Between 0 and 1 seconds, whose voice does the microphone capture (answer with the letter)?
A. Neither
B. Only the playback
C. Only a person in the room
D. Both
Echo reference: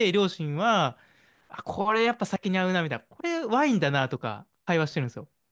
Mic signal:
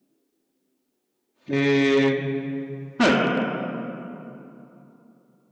A